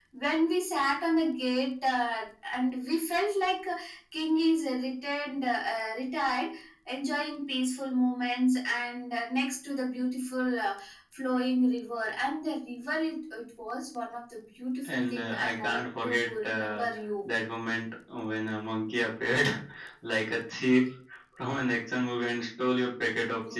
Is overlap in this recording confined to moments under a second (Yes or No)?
No